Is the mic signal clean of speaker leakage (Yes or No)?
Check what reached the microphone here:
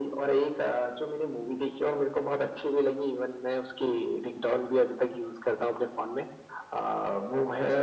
No